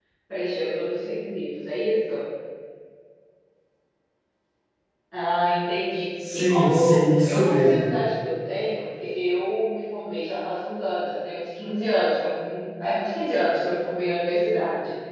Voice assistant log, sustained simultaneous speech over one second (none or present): present